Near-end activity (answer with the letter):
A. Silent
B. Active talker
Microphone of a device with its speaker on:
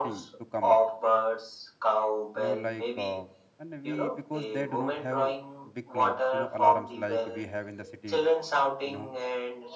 B